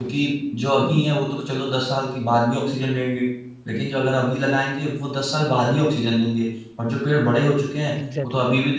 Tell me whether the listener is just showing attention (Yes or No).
Yes